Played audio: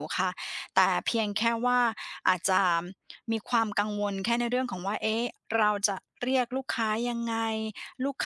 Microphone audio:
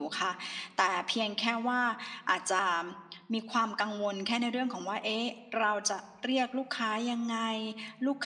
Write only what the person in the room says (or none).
none